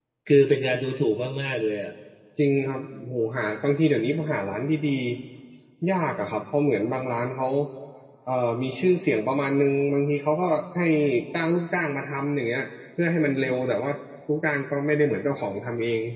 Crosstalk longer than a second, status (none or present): none